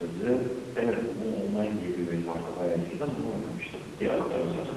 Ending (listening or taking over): taking over